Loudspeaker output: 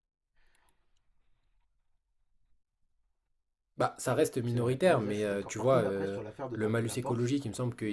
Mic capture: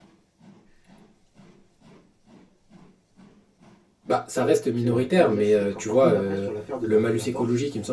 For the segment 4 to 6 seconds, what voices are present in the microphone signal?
echo only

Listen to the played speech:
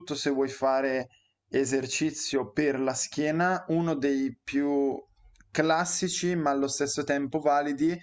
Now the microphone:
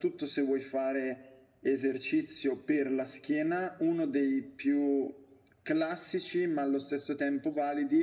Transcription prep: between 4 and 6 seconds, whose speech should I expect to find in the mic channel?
echo only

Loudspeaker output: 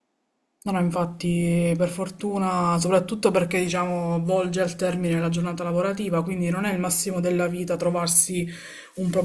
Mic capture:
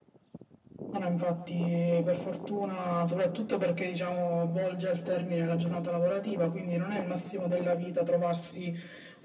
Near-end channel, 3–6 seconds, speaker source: echo only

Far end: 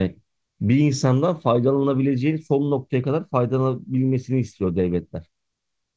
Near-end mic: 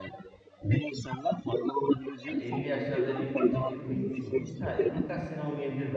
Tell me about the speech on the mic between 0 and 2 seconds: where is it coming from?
echo only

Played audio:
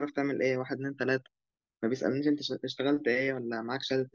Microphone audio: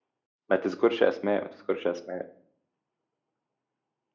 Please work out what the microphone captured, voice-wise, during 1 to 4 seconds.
user only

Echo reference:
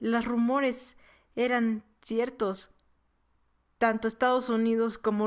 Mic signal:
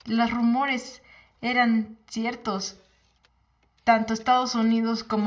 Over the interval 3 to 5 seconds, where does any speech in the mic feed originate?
echo only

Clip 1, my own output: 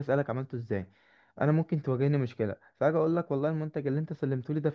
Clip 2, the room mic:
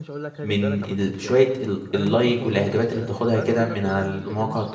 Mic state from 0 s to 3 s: both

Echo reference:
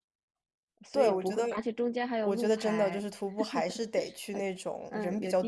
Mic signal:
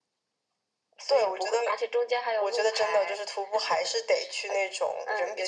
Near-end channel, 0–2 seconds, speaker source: echo only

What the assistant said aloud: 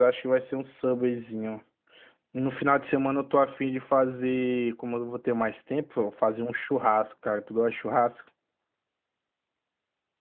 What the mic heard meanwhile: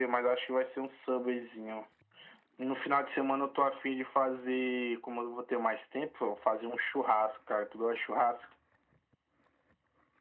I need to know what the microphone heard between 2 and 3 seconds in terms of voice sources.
echo only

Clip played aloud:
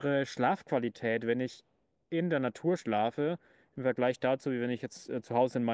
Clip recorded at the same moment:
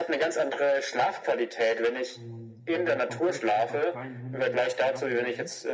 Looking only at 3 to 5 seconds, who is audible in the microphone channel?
both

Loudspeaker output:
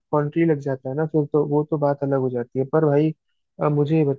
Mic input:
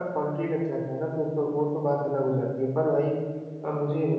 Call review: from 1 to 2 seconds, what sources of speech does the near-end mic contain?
echo only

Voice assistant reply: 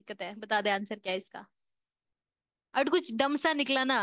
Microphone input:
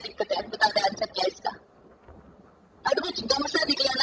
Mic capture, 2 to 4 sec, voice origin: echo only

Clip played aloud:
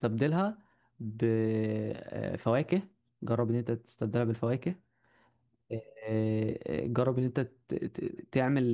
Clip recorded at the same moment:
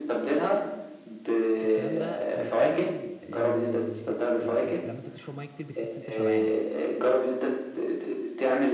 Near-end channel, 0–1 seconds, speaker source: echo only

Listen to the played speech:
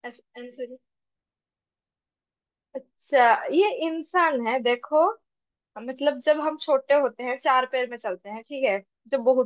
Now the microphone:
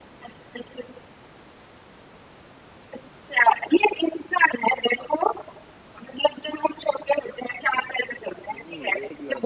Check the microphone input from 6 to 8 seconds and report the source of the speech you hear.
echo only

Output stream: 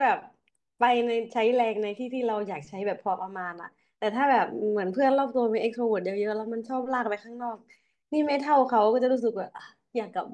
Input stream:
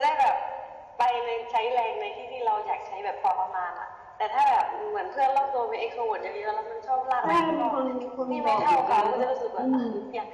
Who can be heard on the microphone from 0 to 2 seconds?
echo only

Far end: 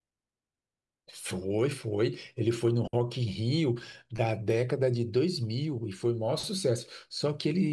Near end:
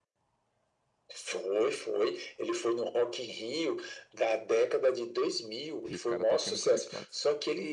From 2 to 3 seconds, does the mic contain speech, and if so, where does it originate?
echo only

